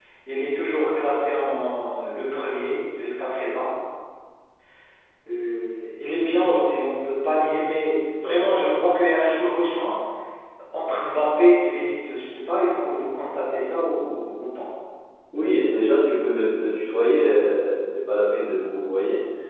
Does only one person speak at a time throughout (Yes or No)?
Yes